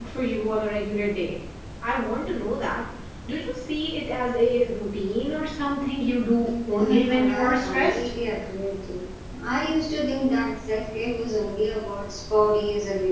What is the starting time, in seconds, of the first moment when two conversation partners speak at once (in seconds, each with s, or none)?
6.8 s